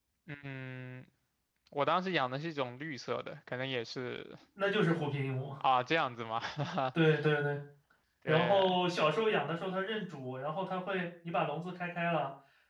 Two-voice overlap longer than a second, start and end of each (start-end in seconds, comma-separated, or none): none